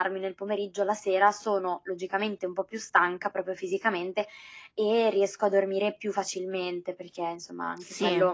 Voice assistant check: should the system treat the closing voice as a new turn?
No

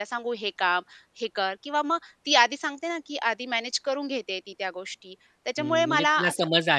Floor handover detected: Yes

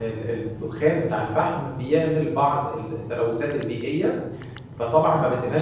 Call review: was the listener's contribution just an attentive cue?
Yes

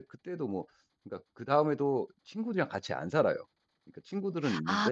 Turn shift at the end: Yes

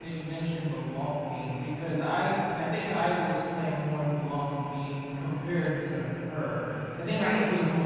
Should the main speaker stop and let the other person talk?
No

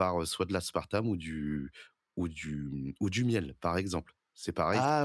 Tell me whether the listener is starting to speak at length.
No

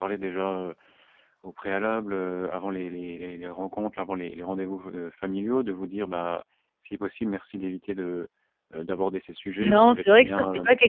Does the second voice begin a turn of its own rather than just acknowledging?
Yes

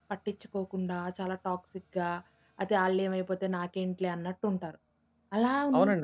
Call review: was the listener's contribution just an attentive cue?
No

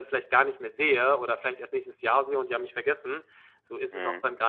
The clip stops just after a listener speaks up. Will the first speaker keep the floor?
Yes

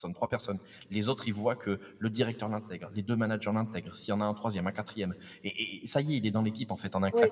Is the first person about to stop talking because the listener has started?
Yes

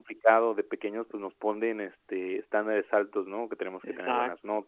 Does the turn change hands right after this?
No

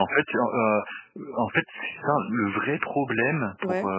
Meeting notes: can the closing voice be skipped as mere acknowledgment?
Yes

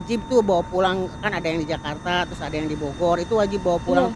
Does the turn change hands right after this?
No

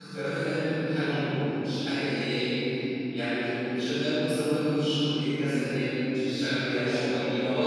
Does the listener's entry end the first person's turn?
Yes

